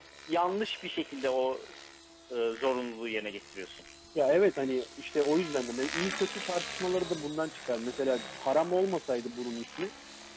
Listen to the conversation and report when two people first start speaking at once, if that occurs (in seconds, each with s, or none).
none